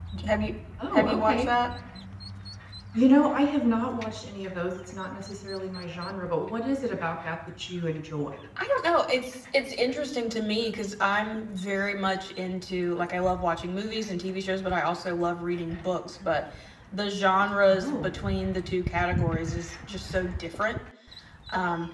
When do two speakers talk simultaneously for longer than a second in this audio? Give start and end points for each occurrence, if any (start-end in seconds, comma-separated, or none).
none